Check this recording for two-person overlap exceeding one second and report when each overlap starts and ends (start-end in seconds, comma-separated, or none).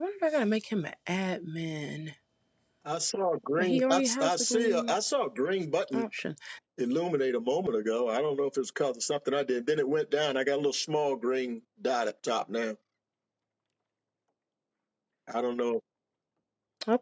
3.6-5.0